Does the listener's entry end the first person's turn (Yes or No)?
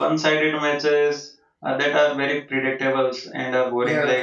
No